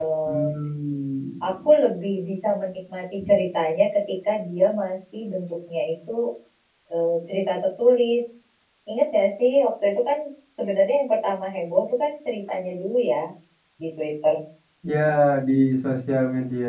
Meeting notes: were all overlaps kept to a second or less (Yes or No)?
Yes